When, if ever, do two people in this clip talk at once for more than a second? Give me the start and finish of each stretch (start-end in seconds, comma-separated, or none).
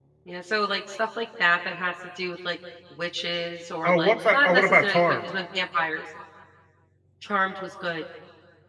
3.8-5.2